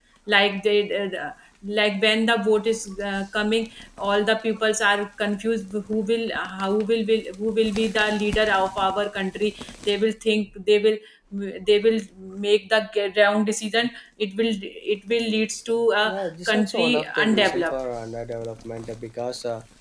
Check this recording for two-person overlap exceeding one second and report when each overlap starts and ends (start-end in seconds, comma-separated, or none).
16.5-17.8